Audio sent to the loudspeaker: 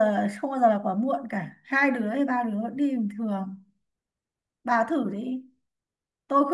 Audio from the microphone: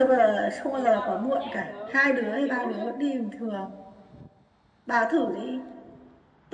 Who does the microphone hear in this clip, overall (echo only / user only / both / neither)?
both